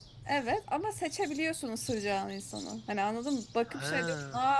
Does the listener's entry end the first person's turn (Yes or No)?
No